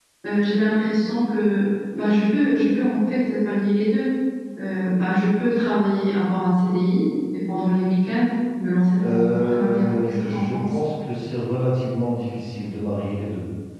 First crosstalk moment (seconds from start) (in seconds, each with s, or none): 9.0 s